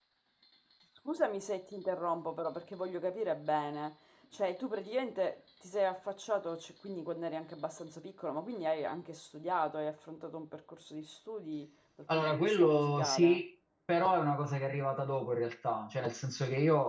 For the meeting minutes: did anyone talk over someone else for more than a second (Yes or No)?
Yes